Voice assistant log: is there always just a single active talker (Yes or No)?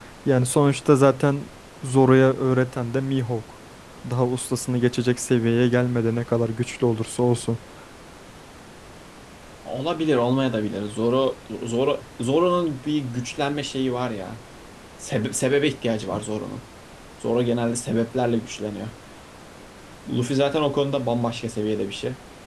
Yes